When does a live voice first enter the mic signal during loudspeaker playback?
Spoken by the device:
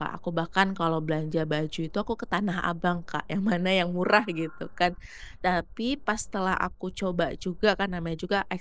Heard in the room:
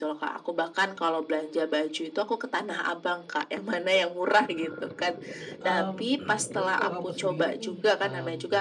5.6 s

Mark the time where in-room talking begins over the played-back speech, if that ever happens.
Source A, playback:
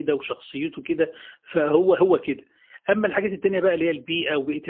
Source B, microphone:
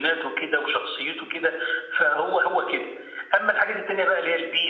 none

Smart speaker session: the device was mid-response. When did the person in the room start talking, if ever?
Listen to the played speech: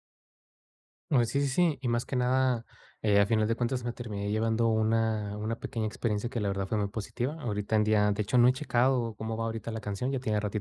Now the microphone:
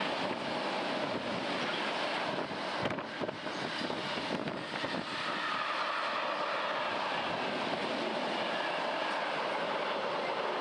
none

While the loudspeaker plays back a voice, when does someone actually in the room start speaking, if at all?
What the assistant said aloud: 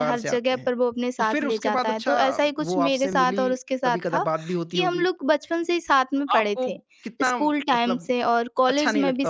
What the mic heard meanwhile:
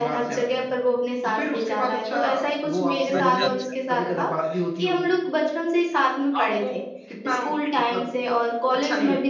3.2 s

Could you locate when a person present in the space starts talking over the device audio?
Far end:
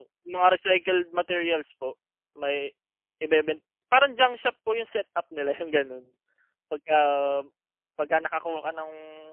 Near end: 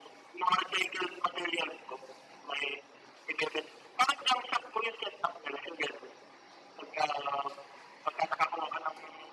none

